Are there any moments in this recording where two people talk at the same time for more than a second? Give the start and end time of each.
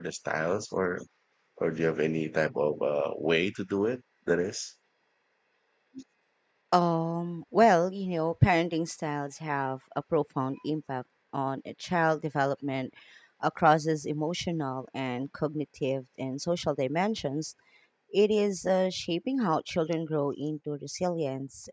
none

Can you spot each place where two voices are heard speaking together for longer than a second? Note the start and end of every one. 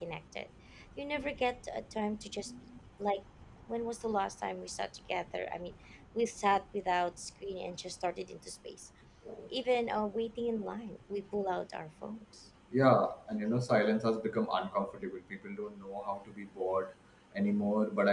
none

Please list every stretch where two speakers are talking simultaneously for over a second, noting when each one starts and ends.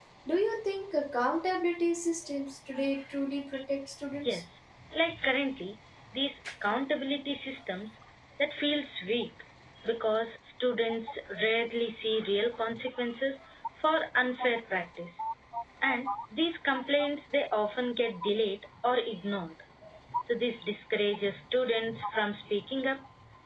none

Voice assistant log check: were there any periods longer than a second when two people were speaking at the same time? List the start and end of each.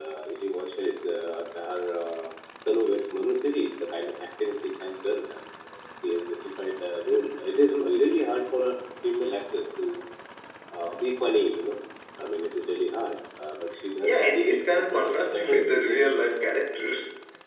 14.0-16.2

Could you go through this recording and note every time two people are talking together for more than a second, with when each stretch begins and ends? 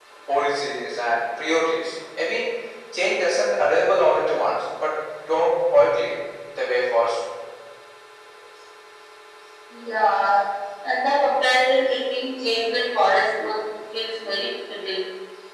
none

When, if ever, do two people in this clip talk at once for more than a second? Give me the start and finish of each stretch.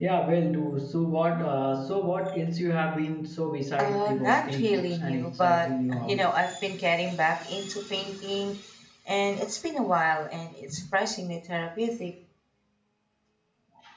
3.8-6.3

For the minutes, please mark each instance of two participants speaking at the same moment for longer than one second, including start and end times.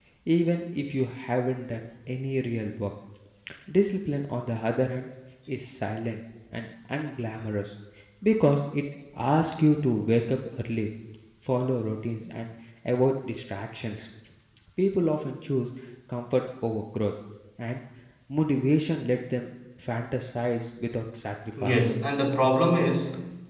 none

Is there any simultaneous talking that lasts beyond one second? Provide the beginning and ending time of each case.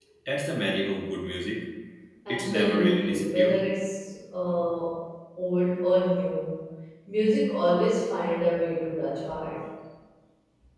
2.3-3.6

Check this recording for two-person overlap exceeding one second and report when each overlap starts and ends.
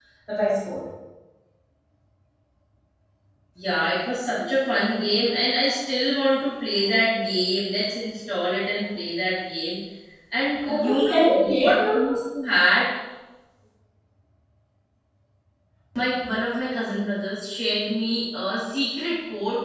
10.7-12.0

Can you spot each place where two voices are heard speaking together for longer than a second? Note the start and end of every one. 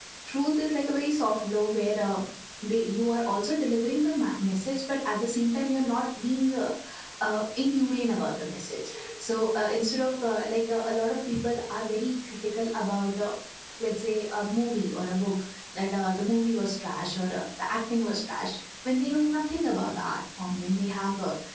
none

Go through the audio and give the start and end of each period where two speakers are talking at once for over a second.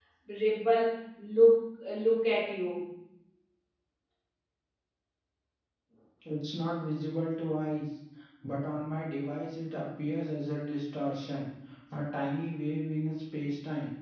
none

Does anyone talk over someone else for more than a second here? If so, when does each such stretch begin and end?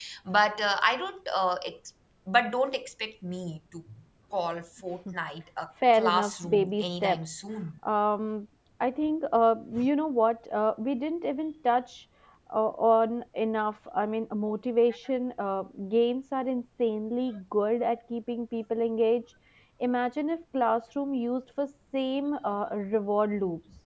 5.9-7.2

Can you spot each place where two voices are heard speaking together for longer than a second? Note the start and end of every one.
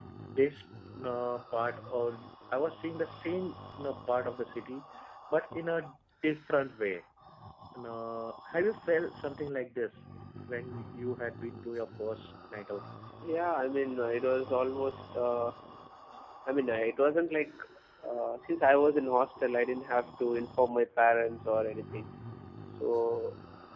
none

